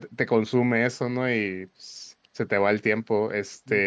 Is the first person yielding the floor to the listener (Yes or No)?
No